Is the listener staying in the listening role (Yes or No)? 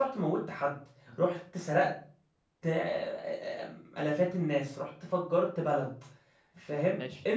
Yes